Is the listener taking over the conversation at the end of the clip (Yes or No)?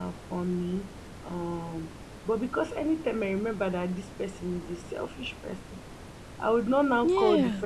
No